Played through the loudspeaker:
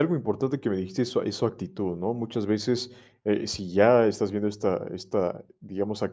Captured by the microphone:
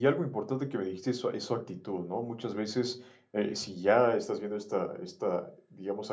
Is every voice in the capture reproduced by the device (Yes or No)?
Yes